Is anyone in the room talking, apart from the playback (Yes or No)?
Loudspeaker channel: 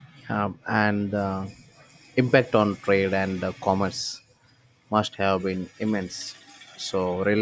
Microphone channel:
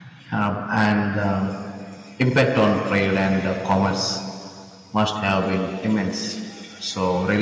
No